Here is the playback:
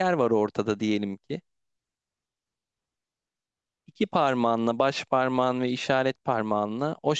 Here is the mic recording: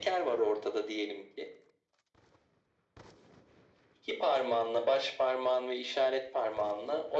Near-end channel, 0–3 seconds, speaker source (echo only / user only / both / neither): echo only